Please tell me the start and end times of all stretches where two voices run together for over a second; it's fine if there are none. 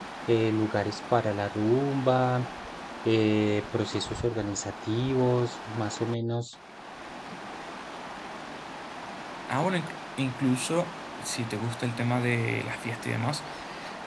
none

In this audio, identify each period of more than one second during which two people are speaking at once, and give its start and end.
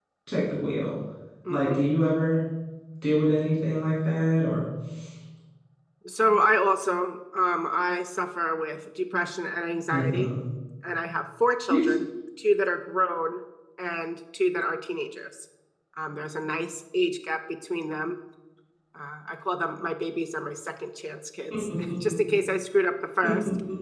none

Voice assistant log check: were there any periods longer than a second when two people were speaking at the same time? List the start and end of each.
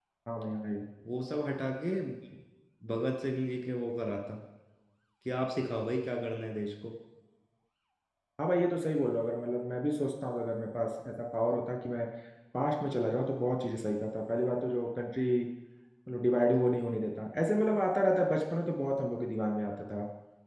none

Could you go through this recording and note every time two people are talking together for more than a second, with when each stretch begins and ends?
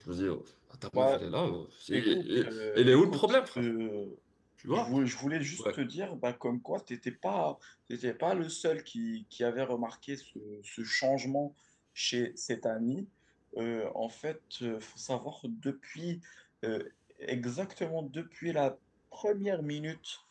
1.9-3.6

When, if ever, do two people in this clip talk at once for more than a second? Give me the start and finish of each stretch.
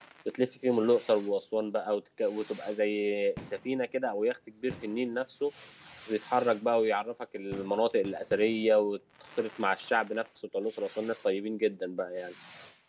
none

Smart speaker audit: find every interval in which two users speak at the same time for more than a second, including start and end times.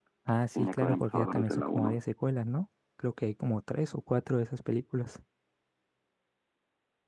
0.6-2.0

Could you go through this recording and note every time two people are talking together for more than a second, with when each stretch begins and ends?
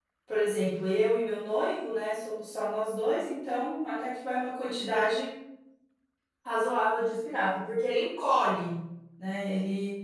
none

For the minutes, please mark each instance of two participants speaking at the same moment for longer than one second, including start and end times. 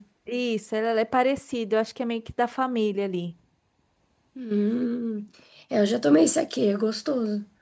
none

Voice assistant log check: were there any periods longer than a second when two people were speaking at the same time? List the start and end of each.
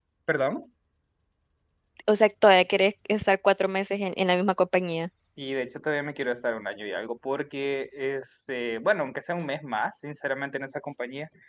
none

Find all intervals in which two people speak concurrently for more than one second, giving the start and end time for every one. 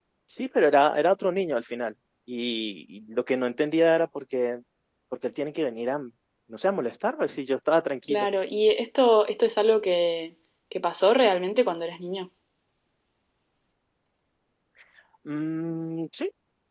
none

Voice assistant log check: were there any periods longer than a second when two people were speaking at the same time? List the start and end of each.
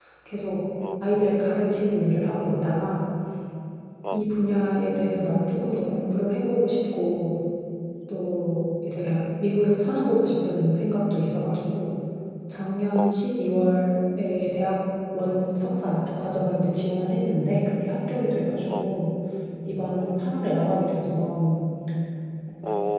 none

